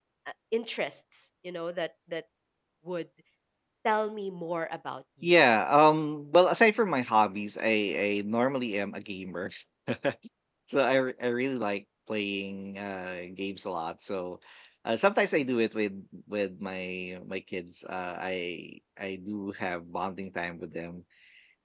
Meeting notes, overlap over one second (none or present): none